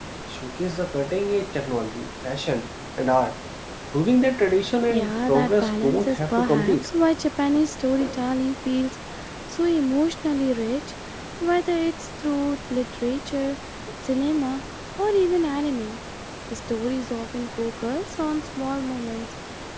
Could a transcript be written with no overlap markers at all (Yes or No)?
No